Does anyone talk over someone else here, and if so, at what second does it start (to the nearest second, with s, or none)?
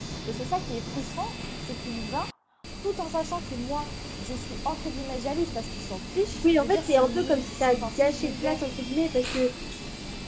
6 s